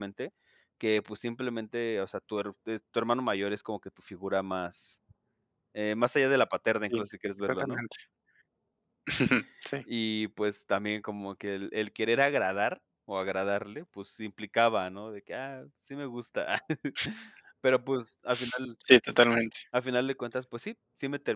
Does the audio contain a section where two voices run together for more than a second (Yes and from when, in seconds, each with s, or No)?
No